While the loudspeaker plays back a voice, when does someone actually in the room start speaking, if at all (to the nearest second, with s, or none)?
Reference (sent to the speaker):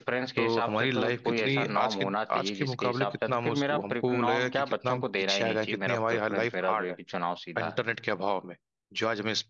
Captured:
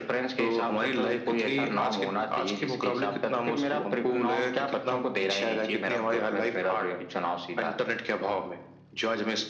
none